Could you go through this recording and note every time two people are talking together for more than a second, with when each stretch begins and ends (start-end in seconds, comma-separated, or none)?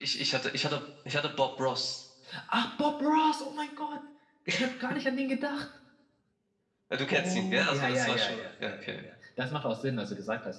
7.1-9.0